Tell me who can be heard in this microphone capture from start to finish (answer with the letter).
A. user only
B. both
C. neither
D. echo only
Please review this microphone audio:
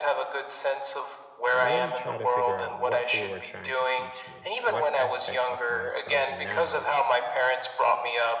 B